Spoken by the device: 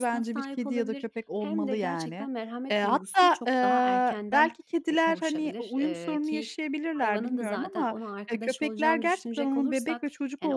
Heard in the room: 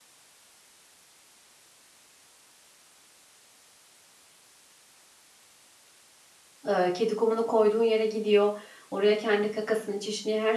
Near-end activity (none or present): present